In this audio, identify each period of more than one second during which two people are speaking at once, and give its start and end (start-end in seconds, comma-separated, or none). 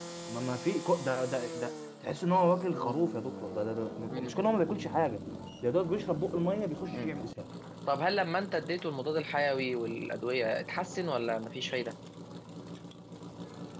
none